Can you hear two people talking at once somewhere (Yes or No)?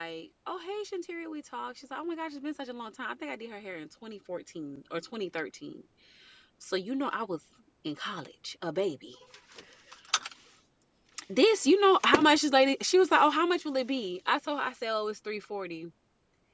No